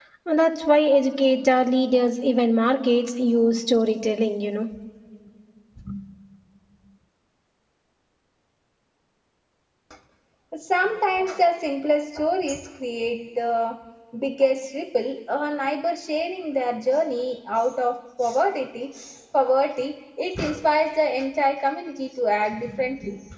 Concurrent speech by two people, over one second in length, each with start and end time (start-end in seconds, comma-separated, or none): none